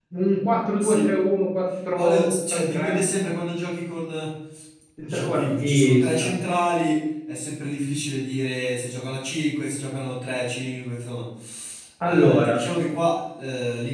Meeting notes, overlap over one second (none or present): present